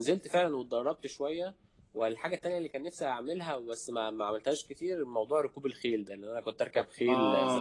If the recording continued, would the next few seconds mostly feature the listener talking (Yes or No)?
Yes